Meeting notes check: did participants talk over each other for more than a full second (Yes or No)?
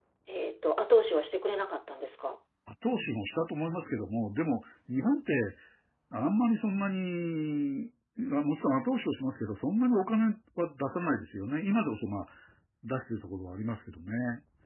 No